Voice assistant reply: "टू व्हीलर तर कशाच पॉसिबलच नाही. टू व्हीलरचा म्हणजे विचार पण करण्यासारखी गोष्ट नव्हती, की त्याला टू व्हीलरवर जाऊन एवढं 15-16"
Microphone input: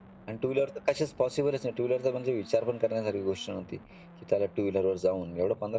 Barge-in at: none

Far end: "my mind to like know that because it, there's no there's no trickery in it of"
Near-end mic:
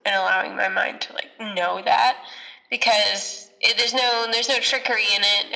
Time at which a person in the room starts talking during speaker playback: none

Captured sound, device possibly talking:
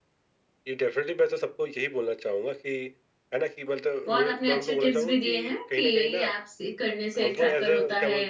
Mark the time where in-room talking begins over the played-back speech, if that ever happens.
4 s

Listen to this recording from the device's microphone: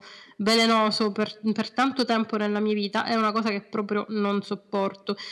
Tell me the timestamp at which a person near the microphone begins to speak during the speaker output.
none

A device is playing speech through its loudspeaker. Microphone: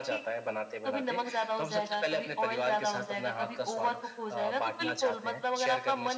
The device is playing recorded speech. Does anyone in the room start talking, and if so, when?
none

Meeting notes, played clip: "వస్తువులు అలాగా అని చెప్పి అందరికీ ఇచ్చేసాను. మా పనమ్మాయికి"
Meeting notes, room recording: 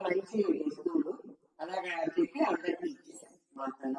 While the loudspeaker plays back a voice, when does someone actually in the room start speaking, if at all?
none

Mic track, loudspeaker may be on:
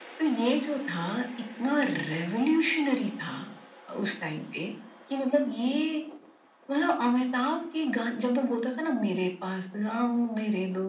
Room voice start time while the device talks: none

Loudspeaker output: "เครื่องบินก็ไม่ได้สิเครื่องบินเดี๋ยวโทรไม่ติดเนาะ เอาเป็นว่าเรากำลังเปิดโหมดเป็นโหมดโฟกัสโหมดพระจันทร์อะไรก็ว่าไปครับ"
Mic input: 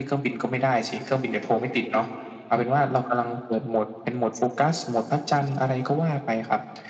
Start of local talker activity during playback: none

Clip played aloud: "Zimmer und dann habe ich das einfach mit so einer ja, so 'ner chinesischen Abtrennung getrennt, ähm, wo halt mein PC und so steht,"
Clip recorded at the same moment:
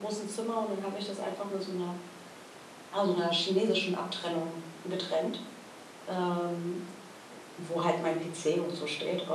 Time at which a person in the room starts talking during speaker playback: none

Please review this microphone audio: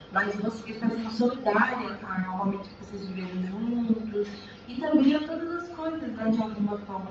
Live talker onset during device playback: none

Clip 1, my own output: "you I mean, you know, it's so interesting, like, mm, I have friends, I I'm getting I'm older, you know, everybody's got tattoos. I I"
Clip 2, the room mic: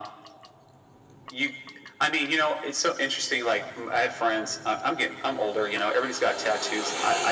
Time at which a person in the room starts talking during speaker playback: none

